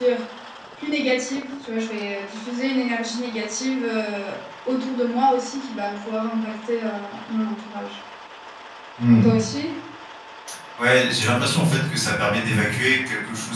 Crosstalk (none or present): none